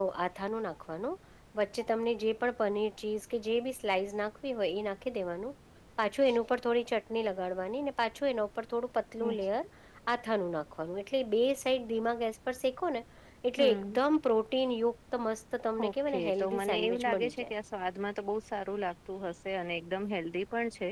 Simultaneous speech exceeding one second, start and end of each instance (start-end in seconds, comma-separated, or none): 15.9-17.5